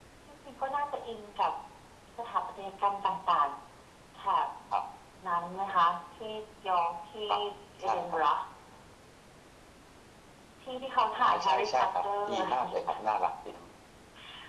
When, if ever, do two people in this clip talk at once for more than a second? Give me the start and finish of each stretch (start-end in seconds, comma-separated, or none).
11.2-13.0